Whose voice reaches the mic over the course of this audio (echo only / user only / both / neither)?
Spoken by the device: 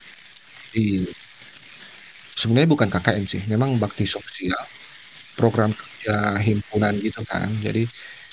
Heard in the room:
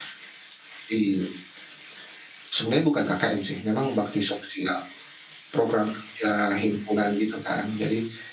echo only